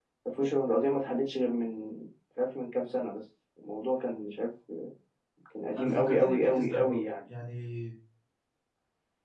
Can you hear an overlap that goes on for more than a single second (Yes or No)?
Yes